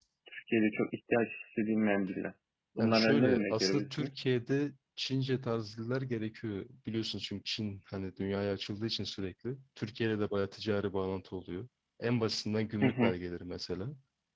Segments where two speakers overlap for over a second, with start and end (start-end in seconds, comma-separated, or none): 2.8-4.1